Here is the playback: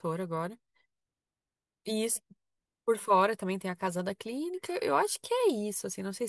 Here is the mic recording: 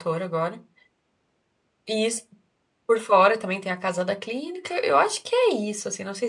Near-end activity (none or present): none